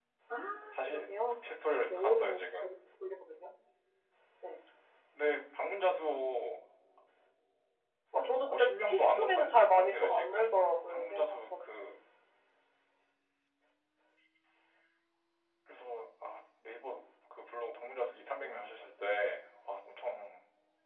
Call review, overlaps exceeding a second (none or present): present